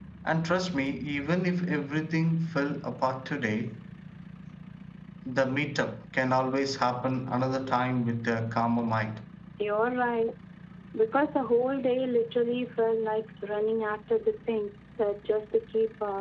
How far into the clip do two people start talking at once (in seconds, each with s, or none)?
none